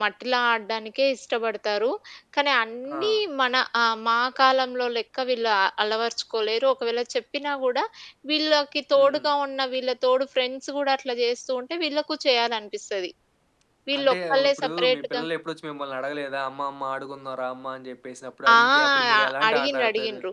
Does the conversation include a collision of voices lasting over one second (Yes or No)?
Yes